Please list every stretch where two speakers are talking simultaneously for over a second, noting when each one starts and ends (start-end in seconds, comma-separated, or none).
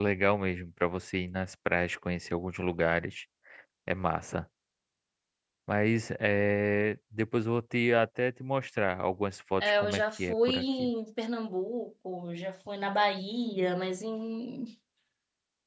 9.6-10.9